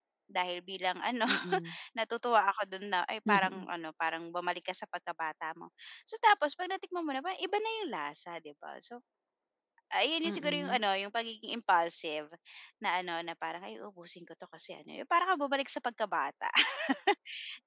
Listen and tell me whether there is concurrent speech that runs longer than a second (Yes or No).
No